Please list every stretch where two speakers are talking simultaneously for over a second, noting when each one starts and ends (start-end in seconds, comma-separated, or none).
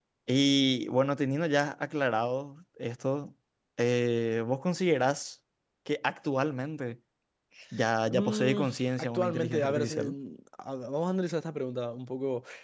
8.1-10.1